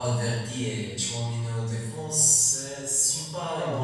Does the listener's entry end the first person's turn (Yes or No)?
Yes